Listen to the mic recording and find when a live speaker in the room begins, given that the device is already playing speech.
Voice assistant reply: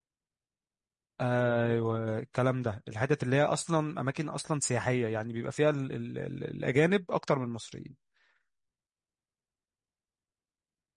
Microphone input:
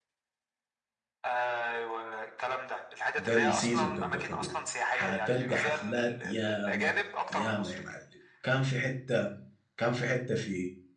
3 s

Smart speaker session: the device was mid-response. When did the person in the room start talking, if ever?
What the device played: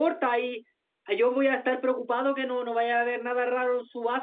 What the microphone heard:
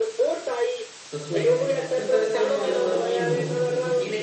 1 s

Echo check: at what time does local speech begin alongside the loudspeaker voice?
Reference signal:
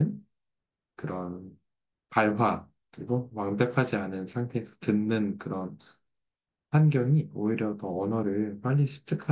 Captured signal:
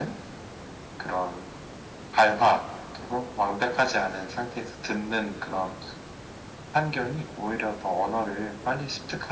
none

